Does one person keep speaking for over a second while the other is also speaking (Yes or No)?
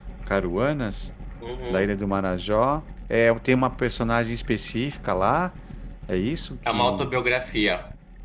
No